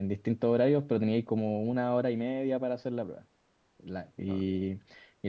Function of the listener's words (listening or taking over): listening